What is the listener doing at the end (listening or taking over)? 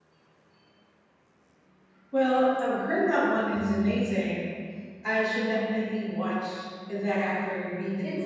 taking over